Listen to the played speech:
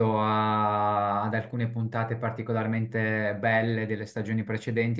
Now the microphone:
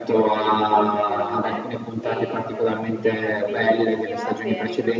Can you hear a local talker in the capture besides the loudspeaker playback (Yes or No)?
Yes